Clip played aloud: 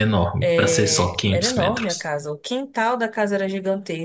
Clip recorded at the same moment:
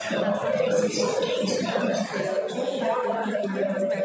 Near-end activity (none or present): present